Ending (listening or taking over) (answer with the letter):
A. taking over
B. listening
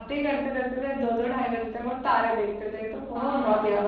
A